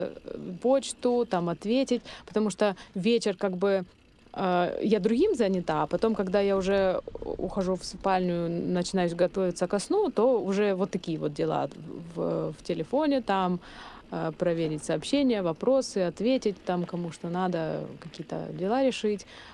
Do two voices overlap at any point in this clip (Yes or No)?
No